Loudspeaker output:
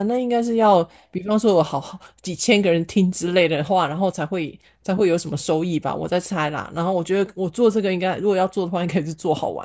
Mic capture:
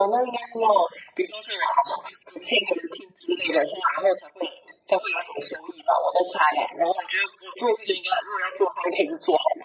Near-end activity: none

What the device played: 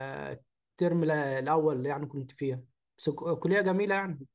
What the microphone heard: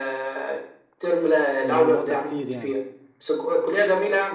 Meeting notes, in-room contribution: present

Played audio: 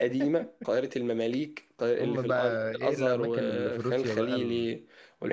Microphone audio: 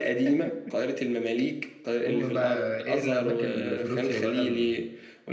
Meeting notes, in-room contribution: none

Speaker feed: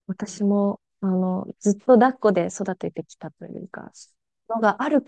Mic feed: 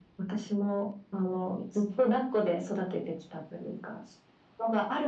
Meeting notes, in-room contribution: none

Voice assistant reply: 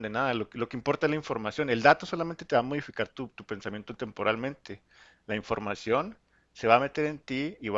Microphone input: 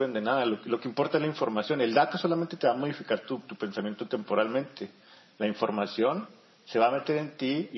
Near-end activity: none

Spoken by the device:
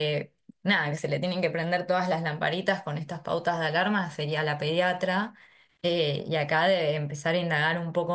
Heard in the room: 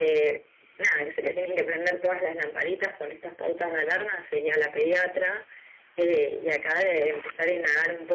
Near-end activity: none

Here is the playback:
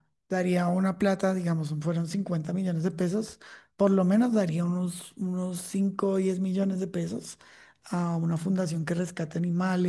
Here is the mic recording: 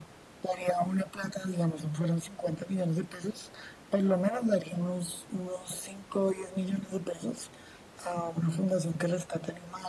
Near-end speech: none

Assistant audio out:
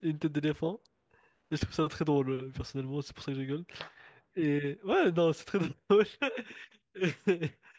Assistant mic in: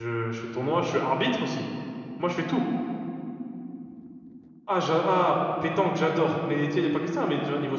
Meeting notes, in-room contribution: present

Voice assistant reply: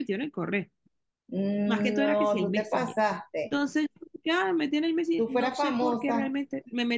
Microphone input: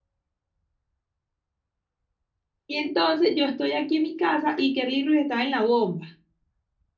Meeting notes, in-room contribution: present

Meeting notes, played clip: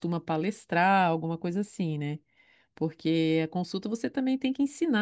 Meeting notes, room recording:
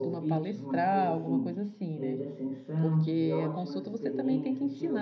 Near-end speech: present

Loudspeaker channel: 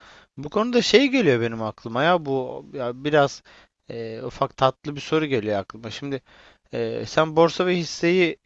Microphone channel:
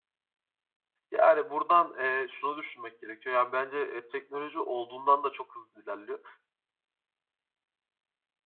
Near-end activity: present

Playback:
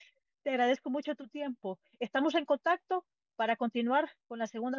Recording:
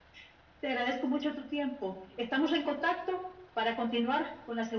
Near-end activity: none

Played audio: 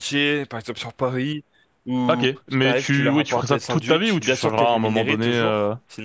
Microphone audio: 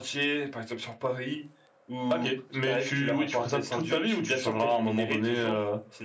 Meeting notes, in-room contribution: none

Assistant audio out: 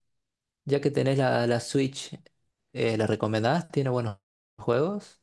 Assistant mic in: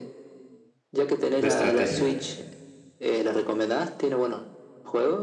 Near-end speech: present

